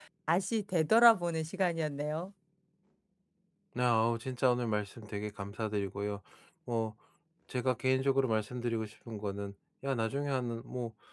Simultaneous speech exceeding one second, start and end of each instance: none

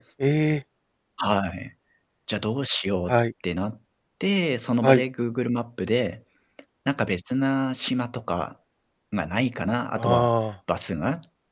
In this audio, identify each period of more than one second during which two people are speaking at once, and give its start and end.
none

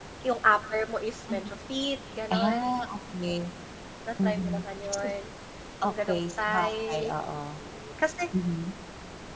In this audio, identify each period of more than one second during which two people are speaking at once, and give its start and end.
5.8-7.1

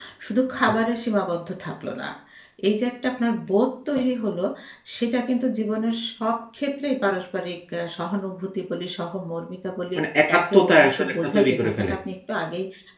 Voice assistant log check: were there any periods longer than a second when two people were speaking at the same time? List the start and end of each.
10.4-11.9

